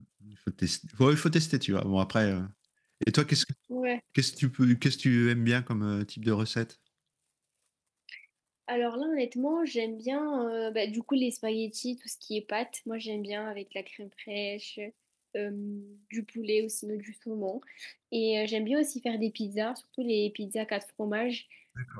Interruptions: none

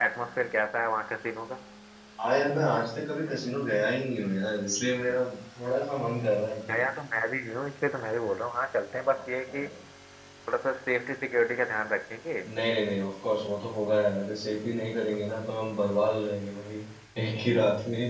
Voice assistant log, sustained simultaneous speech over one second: none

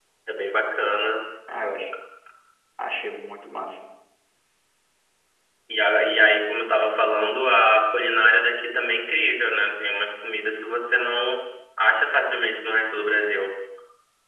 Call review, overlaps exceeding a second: none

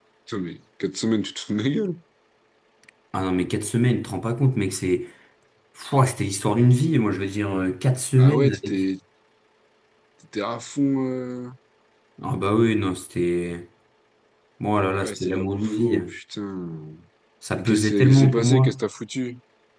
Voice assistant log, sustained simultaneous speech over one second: present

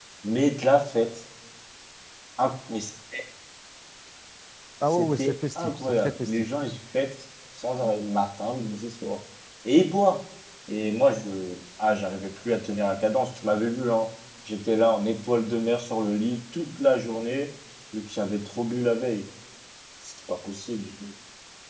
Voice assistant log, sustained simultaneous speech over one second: present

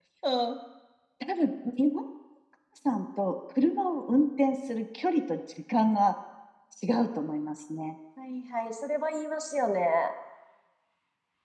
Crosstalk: none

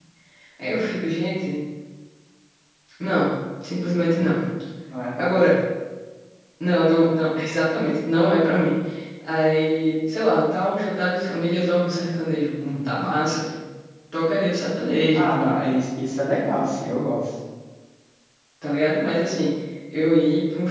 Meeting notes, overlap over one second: none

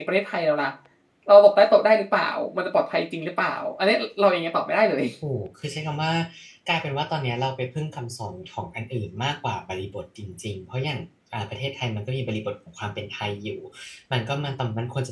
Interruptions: none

